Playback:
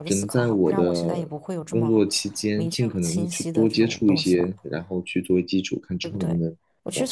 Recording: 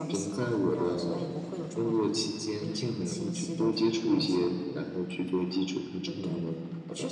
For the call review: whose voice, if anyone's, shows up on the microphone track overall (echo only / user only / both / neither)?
echo only